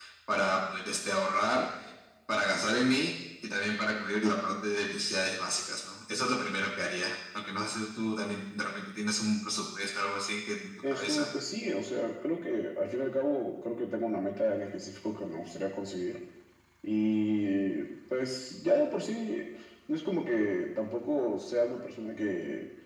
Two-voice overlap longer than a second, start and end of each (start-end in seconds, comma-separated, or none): none